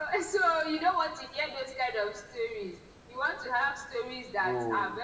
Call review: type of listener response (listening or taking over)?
listening